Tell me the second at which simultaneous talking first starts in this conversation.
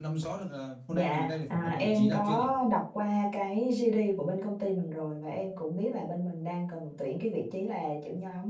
0.9 s

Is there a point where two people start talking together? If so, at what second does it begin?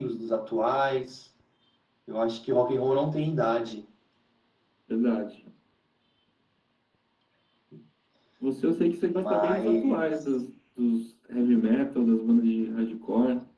9.1 s

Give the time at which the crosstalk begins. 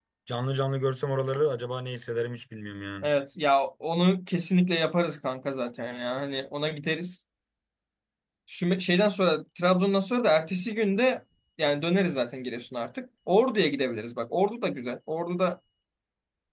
none

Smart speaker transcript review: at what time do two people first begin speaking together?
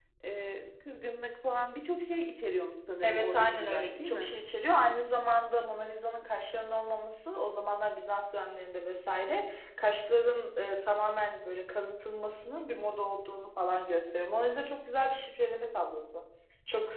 3.0 s

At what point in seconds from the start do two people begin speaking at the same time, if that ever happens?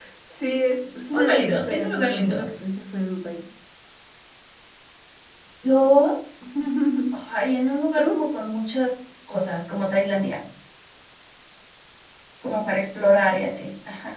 1.1 s

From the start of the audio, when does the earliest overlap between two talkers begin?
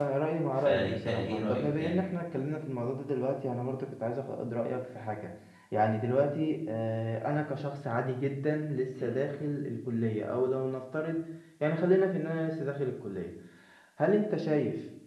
0.6 s

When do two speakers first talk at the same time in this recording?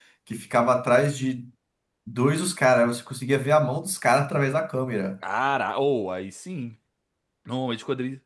none

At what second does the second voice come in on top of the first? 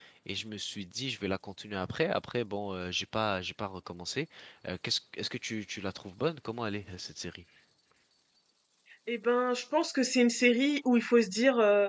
none

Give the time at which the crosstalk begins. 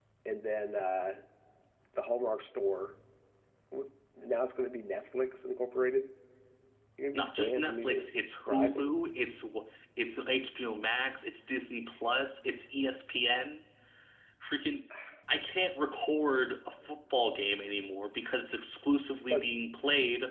7.1 s

